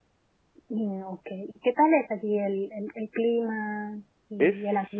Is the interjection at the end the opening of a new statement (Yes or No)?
Yes